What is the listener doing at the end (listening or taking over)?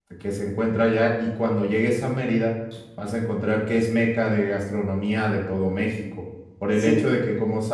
listening